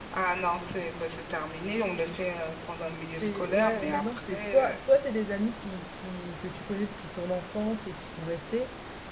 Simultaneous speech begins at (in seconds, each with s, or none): 3.2 s